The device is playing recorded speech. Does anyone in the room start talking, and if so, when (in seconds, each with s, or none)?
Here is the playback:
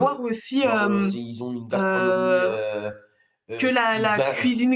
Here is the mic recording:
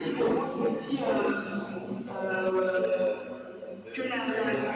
none